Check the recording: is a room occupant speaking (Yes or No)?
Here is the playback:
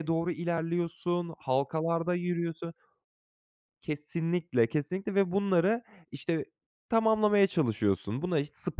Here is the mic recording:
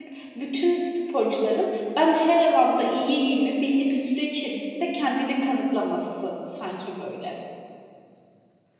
Yes